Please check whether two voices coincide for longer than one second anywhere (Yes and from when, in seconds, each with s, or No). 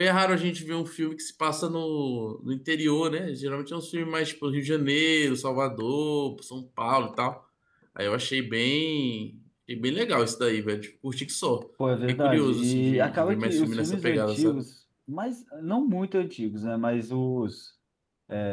Yes, from 12.1 s